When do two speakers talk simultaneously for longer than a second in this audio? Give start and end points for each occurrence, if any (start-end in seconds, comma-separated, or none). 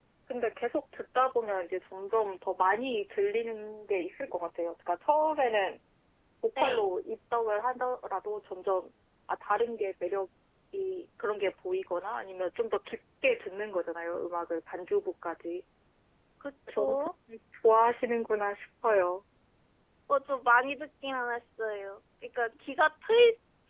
none